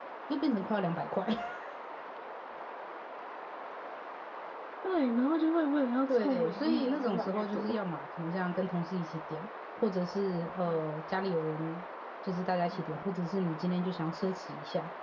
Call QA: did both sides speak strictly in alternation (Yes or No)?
No